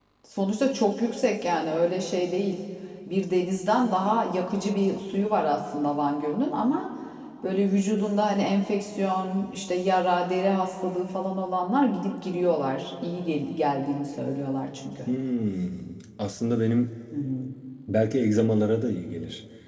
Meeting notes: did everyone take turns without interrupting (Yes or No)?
Yes